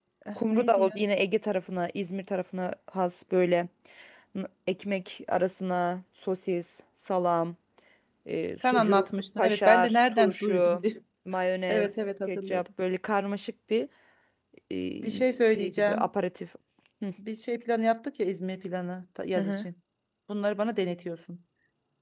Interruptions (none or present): present